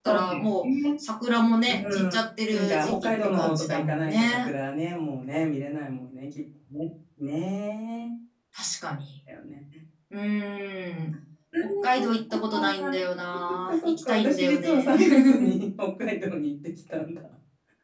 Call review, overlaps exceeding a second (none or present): present